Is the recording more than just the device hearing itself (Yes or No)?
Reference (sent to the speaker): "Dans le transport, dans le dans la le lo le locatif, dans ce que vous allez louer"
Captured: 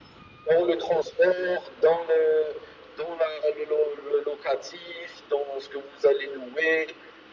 No